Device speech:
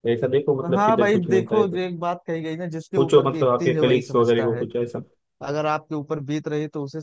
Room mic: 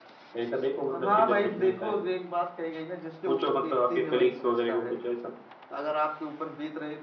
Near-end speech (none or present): none